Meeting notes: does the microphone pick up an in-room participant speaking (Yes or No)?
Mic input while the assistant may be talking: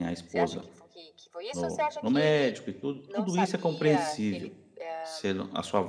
Yes